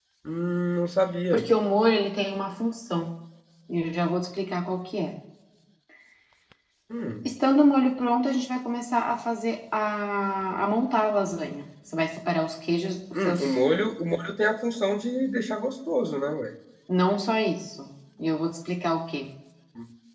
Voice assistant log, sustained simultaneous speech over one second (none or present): none